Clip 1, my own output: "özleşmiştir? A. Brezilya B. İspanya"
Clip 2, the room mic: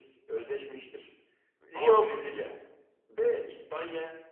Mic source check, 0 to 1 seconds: echo only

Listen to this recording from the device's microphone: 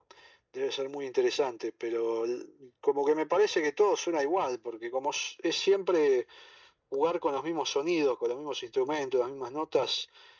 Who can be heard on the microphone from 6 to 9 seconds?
echo only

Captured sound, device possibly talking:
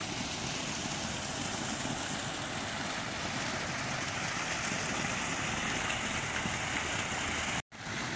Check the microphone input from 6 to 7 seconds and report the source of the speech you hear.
neither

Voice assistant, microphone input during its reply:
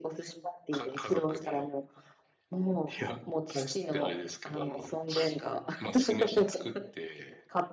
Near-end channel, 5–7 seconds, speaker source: echo only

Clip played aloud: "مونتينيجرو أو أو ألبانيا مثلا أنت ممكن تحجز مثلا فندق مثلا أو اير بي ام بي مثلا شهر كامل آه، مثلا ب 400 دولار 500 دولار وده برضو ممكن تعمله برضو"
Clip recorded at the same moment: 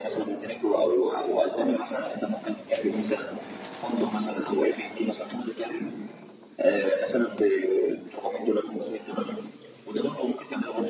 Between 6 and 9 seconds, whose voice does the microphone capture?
echo only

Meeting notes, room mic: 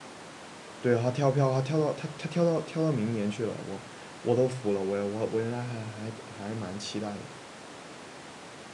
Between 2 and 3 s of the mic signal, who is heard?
user only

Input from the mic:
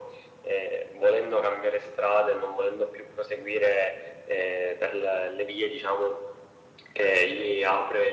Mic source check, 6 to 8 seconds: echo only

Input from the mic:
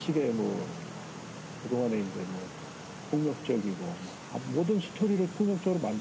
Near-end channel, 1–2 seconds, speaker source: echo only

